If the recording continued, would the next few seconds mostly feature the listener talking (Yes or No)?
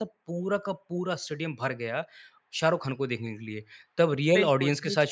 No